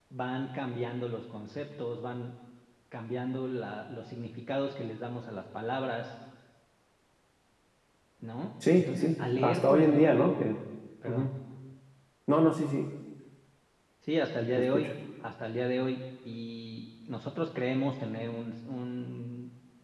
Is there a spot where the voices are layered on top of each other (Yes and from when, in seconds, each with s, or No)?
Yes, from 8.8 s